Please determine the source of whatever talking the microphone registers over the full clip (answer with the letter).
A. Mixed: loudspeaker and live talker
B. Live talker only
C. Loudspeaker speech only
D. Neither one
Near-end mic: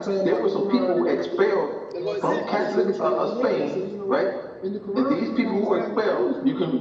A